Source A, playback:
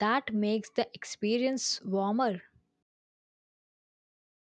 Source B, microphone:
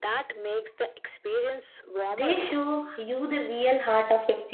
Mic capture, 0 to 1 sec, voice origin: echo only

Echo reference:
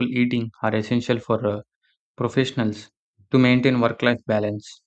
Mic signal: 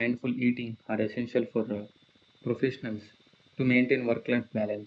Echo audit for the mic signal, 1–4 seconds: echo only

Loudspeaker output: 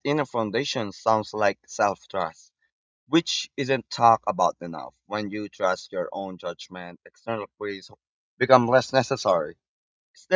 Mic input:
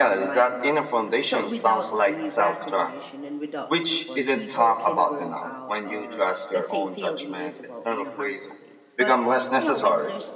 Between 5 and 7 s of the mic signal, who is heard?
both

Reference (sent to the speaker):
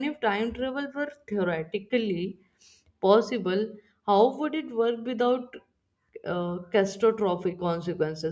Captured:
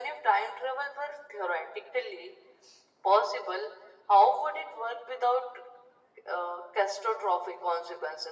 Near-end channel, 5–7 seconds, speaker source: echo only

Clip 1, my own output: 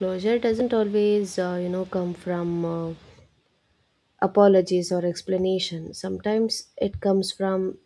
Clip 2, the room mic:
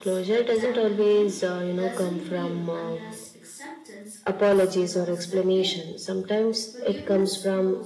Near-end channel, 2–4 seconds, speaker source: both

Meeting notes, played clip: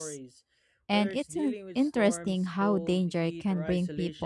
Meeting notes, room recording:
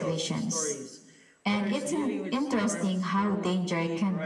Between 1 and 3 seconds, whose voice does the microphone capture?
echo only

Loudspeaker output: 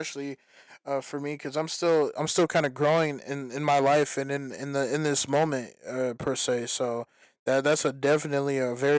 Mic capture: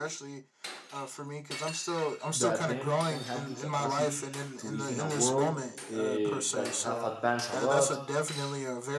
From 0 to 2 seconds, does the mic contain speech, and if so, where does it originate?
echo only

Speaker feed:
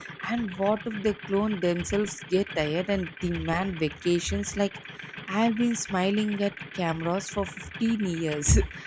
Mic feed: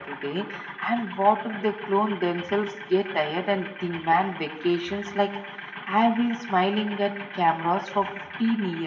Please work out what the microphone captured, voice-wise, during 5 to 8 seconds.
echo only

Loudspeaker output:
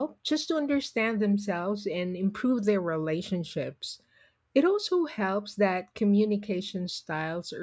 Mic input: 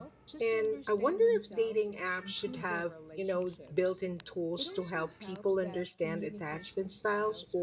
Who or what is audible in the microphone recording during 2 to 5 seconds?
both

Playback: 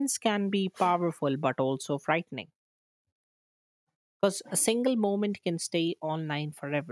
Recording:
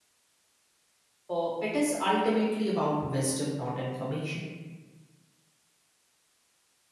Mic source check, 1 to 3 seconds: user only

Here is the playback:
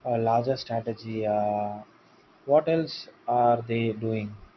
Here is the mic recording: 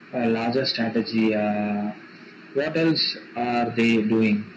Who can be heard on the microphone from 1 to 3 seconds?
echo only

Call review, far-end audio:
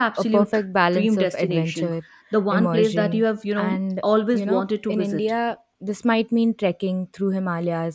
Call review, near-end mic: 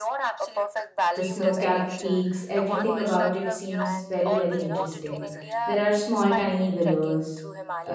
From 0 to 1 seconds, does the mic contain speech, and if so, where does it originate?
echo only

